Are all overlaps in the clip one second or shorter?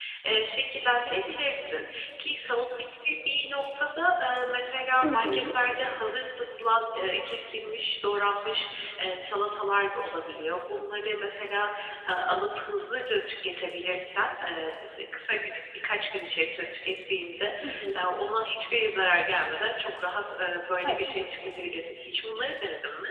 Yes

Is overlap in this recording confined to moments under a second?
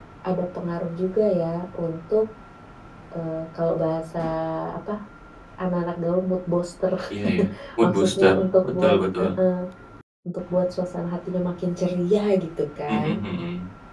No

